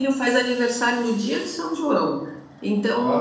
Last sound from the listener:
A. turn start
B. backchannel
B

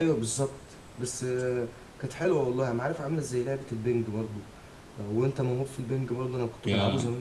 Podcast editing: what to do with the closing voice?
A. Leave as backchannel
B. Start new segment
A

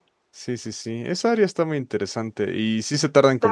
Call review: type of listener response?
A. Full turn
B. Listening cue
B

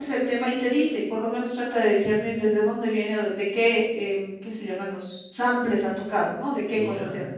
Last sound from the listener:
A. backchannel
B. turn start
A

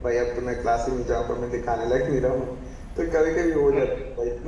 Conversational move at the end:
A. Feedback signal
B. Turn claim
A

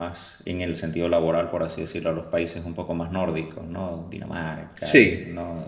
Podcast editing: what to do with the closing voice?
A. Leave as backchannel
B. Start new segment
A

